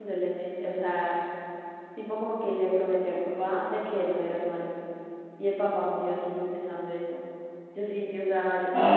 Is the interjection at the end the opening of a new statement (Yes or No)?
No